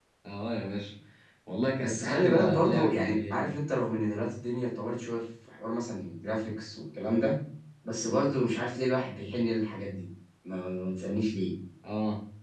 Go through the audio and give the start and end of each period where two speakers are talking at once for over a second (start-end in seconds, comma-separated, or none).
1.8-3.6